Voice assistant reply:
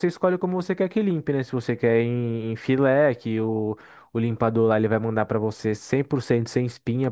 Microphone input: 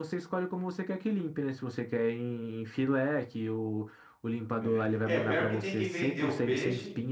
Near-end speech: present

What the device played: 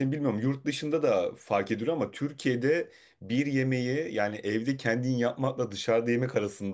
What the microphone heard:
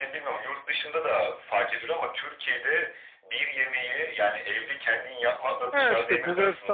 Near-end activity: present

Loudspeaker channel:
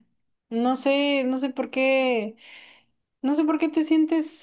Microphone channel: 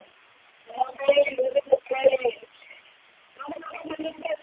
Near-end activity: none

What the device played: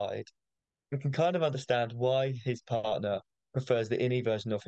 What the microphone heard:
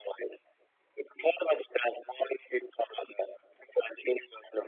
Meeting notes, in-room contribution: none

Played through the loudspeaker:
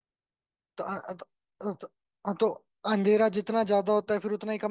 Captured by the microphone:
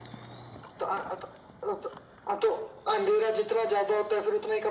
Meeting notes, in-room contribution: none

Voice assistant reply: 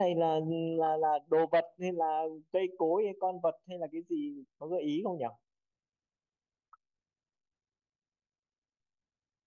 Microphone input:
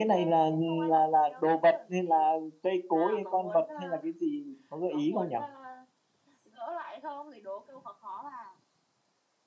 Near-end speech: present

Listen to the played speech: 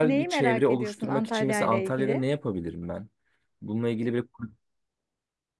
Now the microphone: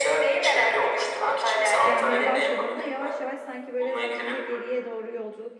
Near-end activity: present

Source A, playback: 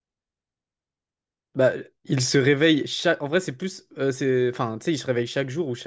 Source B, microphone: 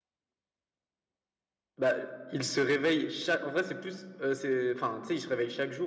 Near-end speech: none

